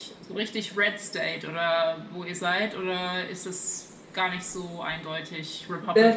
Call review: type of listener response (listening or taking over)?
taking over